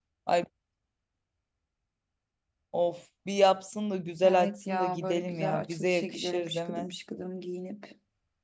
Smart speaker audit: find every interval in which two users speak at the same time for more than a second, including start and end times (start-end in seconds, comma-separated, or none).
4.2-6.9